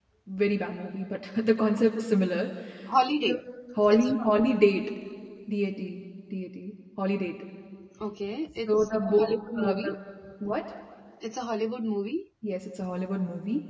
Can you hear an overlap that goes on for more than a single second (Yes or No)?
Yes